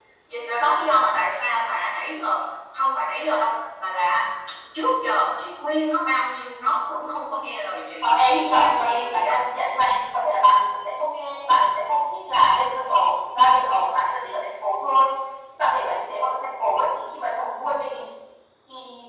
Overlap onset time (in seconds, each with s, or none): 8.0 s